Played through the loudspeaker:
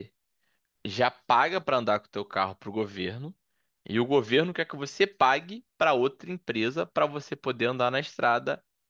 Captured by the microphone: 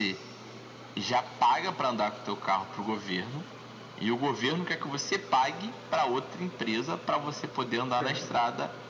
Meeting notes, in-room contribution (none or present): present